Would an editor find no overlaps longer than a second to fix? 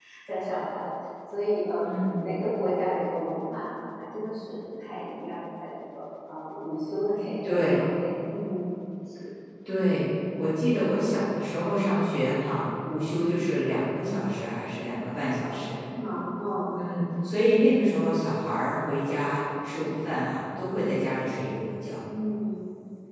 Yes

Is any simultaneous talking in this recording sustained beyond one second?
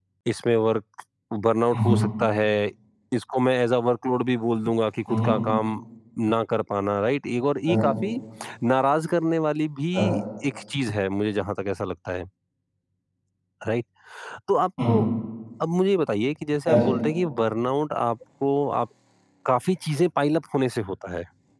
No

